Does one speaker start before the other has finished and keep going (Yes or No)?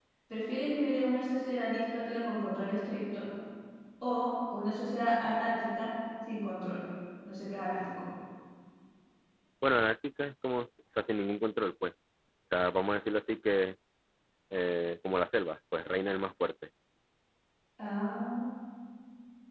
No